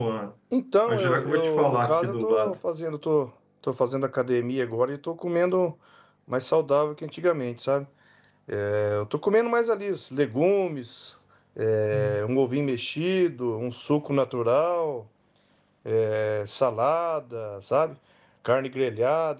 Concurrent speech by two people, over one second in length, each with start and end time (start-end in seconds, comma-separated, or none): 0.9-2.6